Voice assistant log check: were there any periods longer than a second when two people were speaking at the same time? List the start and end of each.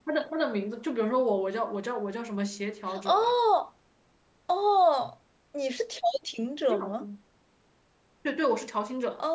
none

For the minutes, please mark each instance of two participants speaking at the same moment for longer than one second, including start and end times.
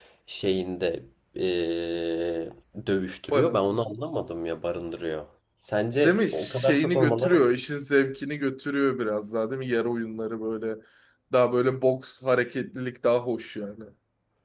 6.0-7.4

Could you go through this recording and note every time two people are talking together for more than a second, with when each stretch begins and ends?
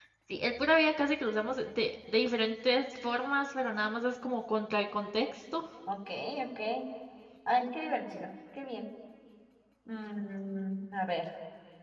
none

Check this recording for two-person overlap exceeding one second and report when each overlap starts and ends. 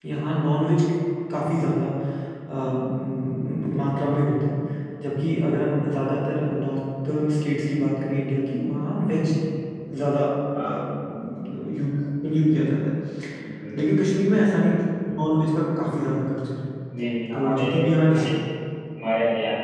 none

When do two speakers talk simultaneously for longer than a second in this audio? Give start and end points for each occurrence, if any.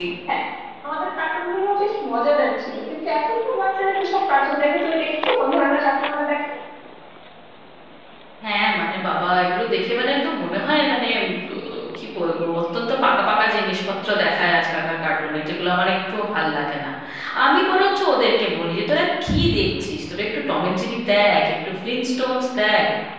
none

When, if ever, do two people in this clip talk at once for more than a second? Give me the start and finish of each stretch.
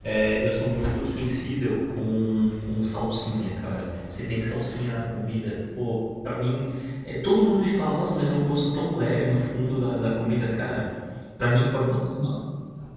none

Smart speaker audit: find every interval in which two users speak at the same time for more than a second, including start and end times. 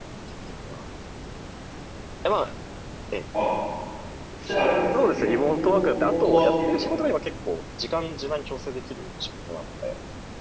5.0-6.9

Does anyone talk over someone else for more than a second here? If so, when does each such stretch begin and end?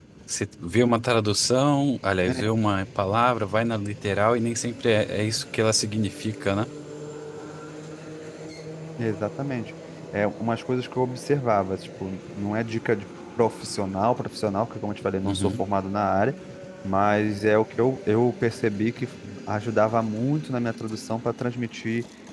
none

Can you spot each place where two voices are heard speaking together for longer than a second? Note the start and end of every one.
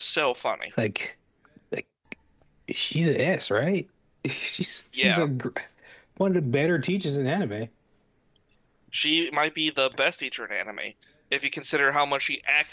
none

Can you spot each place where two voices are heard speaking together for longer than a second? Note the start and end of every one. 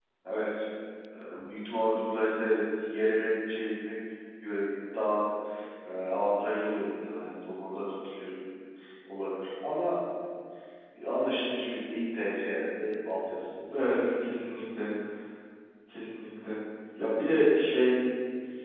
none

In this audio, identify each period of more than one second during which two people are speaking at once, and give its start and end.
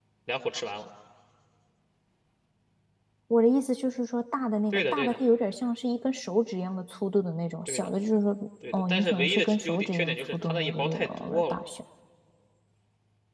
8.7-11.6

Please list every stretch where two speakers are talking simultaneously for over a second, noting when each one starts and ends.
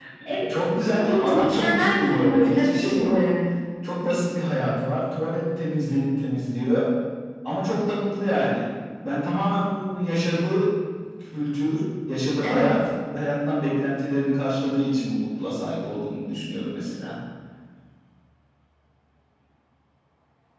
0.9-3.2

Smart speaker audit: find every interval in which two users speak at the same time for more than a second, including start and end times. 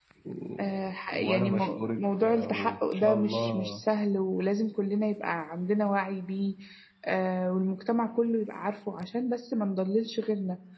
1.1-3.8

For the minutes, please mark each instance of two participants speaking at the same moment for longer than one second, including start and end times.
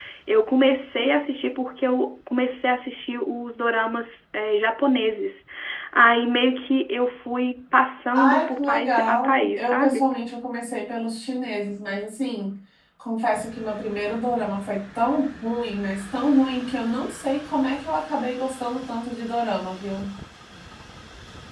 8.1-10.1

